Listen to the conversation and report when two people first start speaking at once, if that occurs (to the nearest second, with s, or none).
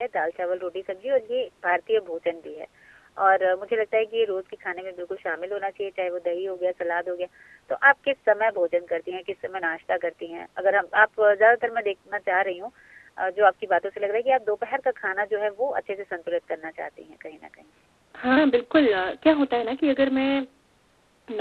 none